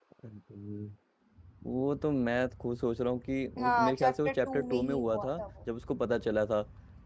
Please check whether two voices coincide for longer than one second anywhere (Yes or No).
Yes